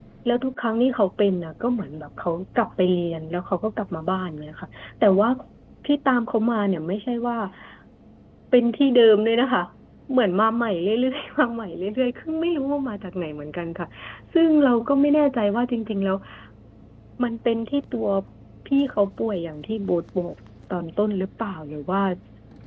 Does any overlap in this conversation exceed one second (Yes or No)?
No